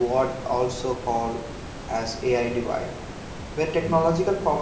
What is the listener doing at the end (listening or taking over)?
listening